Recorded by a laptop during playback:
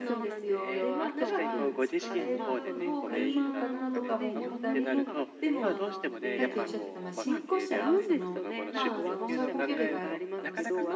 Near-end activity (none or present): present